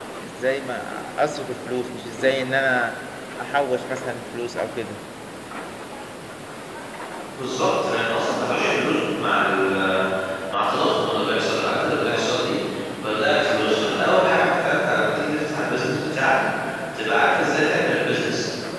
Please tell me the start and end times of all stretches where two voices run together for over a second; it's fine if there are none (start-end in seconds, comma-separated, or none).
none